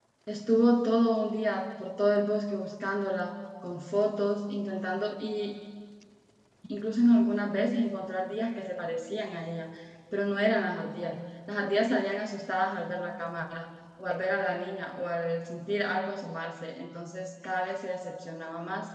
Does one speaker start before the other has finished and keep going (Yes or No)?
No